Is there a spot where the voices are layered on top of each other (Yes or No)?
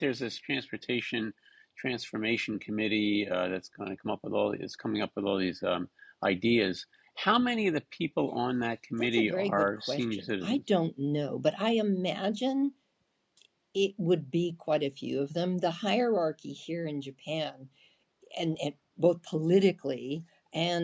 Yes